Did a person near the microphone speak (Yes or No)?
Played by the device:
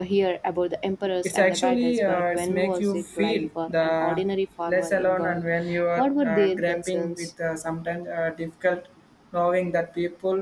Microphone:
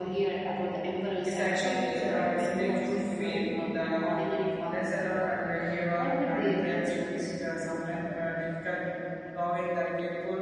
No